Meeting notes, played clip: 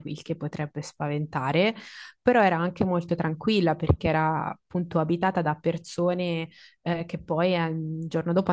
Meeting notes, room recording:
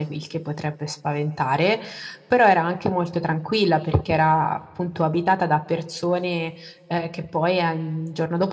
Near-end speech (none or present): none